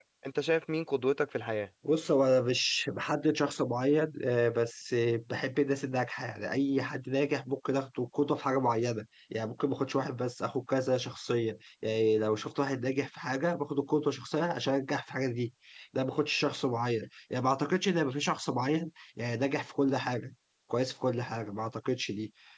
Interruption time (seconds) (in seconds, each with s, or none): none